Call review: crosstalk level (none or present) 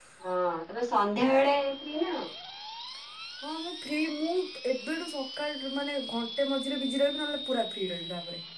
none